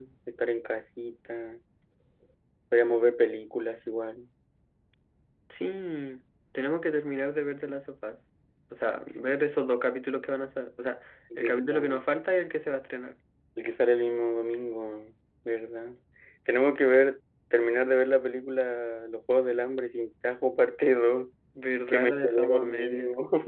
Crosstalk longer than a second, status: present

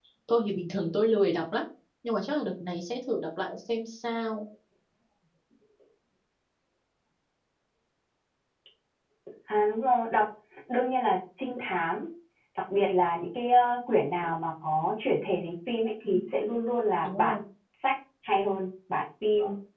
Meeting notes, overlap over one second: none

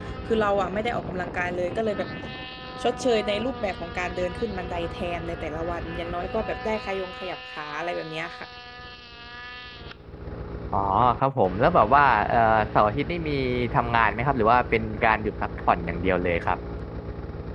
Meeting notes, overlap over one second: none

